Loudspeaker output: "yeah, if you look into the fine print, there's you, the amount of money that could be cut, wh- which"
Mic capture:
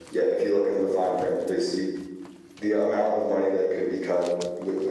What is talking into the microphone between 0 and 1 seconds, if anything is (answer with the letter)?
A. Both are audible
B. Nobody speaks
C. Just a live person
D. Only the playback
D